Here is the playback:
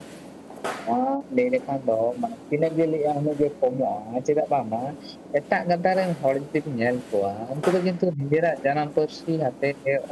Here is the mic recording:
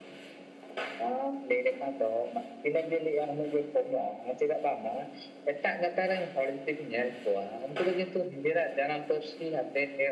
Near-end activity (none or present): none